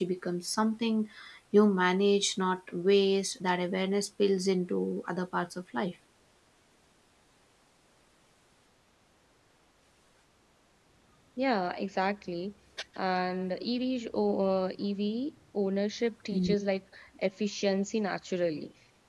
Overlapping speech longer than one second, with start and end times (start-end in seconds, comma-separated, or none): none